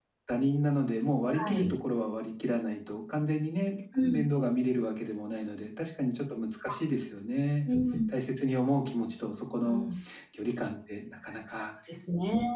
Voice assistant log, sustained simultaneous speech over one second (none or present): none